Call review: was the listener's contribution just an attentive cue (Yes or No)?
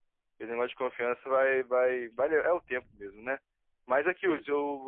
Yes